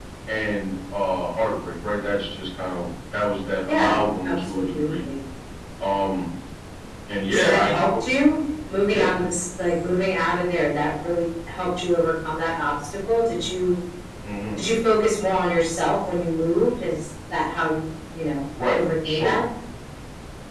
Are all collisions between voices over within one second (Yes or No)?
No